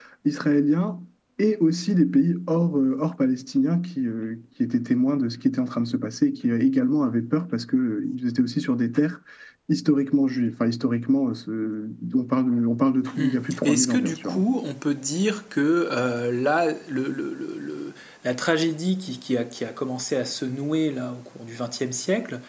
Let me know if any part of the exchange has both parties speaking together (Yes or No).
Yes